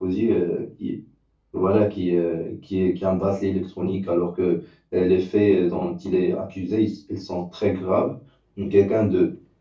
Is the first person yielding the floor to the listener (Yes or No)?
No